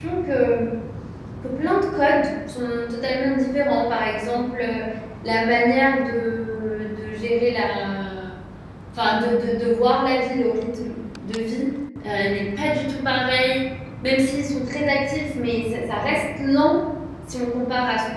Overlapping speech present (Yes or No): No